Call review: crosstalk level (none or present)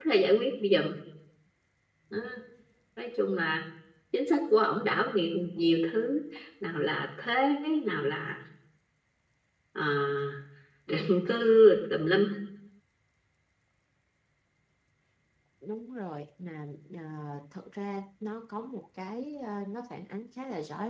none